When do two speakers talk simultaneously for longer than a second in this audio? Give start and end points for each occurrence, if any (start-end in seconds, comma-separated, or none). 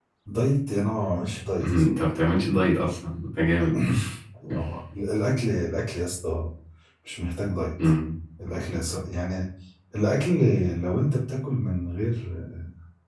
none